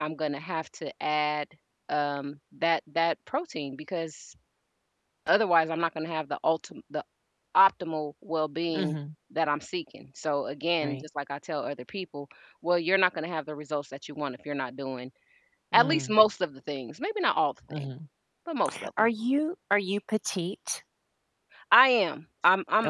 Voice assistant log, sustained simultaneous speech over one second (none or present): none